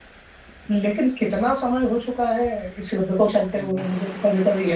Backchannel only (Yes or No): No